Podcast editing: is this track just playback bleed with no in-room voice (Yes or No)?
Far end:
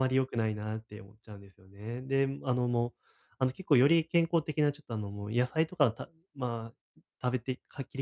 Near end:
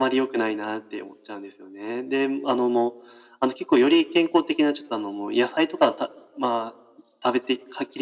Yes